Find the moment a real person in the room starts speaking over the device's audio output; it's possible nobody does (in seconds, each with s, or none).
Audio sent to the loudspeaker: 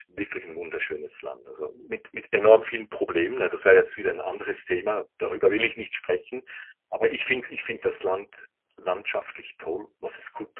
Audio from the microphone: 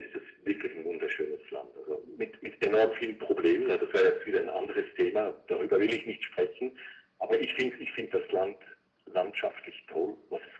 none